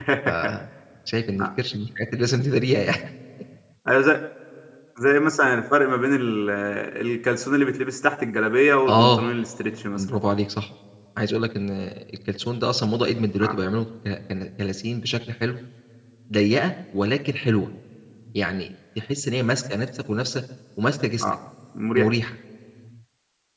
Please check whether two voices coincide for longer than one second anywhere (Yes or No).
No